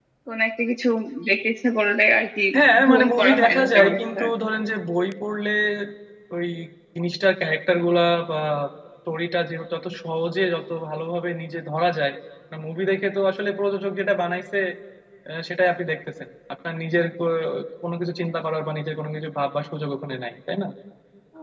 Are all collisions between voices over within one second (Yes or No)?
No